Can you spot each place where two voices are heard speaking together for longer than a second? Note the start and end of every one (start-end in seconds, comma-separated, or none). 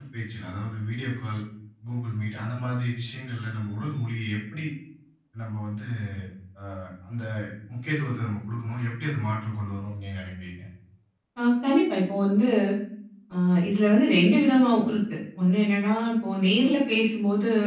none